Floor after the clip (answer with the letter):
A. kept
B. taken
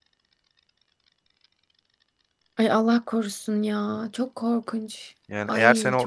B